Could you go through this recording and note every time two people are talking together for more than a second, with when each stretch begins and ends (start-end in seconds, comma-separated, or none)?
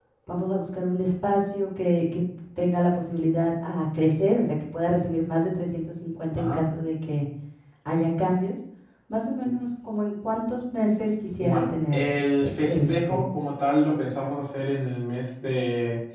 11.4-13.2